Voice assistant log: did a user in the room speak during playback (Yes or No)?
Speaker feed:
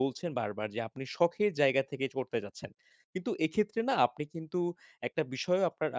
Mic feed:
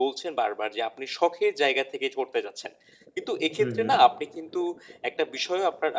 Yes